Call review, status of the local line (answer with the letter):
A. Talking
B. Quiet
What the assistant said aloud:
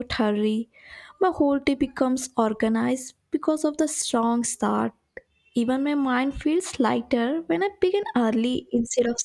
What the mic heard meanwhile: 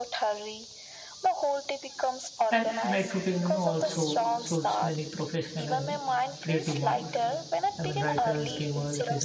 A